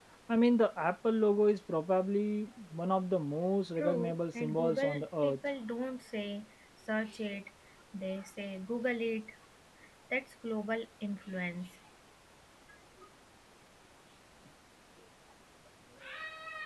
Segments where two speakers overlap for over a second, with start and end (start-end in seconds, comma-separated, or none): 3.8-5.3